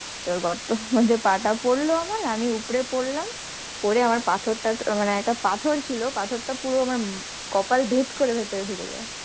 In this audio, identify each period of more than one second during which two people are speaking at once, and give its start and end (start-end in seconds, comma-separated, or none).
none